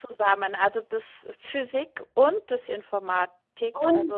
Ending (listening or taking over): taking over